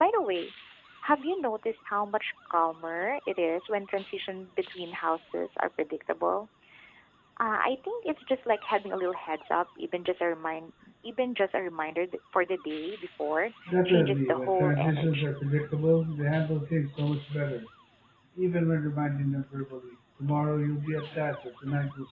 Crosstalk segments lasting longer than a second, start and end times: 13.8-15.3

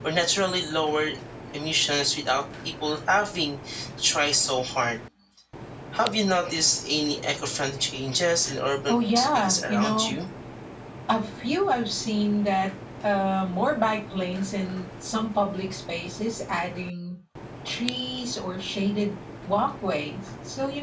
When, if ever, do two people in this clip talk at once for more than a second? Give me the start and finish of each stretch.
8.9-10.2

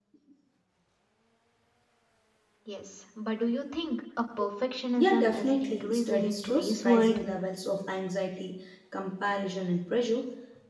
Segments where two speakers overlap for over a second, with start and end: 5.0-7.2

